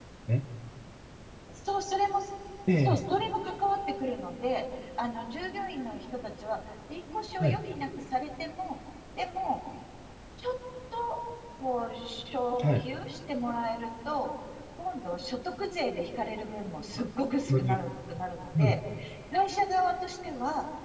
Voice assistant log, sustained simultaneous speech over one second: none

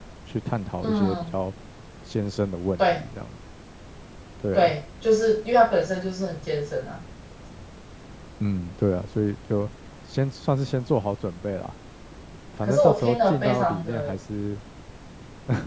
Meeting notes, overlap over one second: present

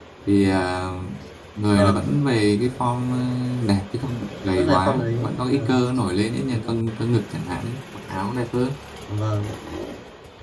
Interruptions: present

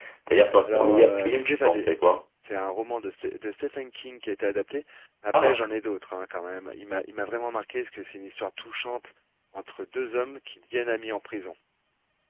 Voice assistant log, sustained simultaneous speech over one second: present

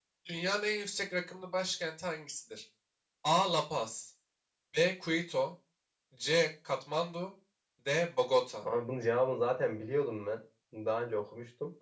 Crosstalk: none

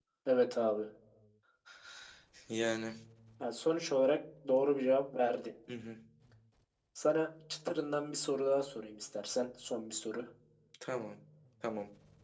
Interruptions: none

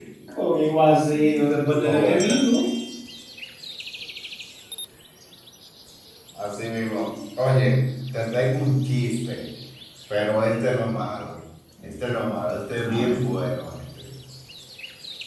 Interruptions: present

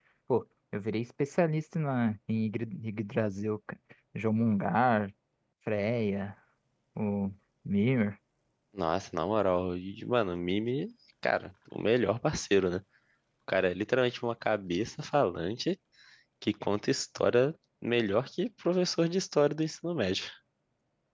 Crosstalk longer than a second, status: none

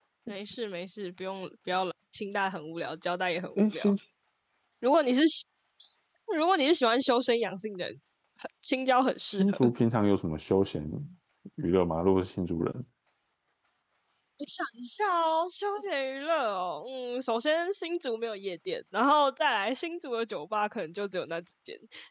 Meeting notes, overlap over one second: none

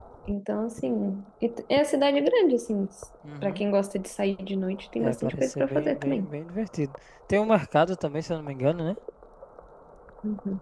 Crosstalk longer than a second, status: present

